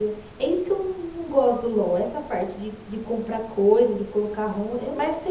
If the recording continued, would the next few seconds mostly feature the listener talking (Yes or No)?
Yes